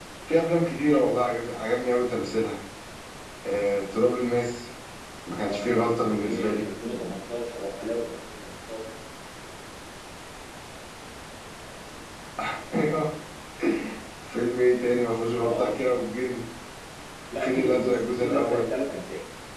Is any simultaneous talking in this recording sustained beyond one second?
Yes, from 5.4 s

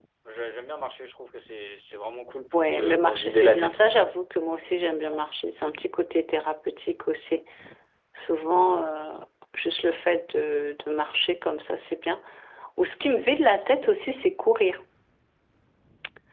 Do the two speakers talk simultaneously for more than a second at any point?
Yes, from 2.5 s

